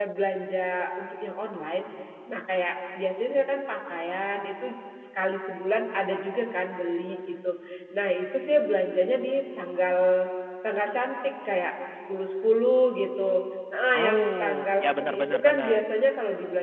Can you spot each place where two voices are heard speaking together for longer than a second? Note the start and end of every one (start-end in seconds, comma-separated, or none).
13.9-15.8